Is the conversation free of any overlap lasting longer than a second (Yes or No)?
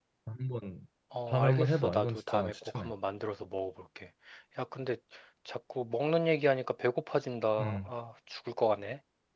No